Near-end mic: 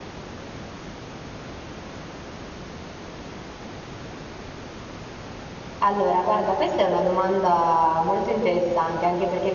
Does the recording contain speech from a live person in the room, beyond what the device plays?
Yes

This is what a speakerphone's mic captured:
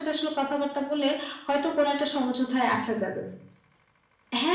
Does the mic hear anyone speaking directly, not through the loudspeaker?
No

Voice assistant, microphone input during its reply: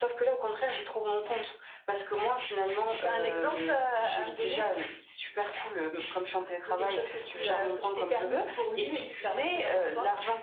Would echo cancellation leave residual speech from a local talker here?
No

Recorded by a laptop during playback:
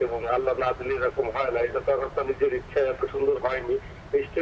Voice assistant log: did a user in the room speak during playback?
No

